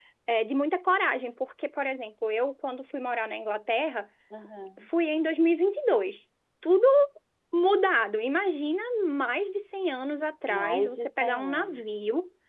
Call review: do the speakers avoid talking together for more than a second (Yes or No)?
No